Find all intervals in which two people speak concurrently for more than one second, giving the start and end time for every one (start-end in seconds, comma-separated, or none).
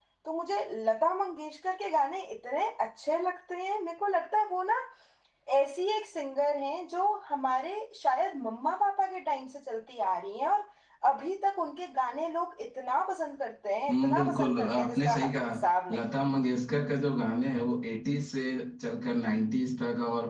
13.9-15.5